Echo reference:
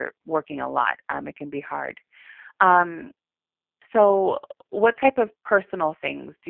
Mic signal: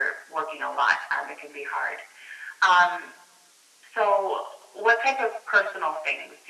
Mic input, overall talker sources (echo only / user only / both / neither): echo only